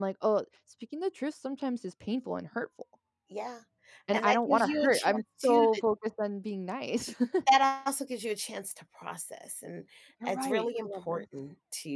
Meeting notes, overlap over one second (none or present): present